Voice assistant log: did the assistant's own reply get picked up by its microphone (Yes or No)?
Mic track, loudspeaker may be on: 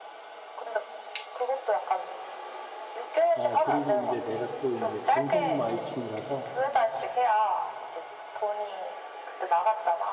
Yes